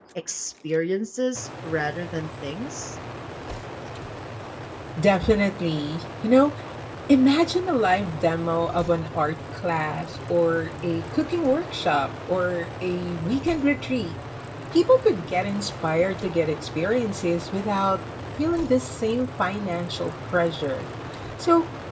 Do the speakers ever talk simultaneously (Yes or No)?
No